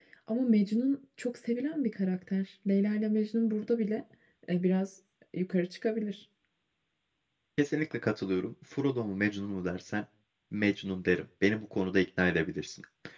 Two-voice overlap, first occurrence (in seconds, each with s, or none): none